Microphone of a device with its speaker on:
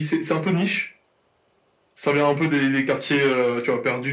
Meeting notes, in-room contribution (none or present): none